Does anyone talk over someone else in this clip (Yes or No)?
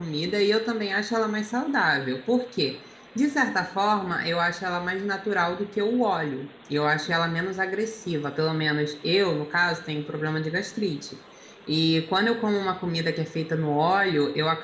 No